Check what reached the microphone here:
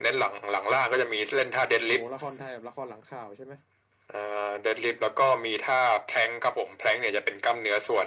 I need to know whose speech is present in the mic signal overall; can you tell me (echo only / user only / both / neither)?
both